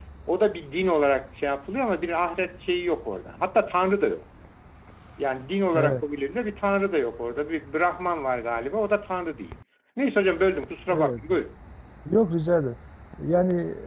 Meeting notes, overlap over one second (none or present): none